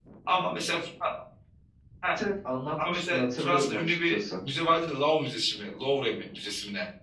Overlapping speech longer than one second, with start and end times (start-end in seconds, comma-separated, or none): 2.8-4.2